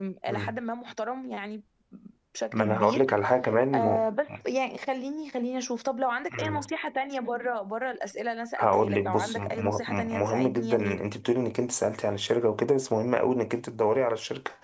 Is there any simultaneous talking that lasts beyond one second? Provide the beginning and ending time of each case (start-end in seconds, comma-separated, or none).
8.6-11.0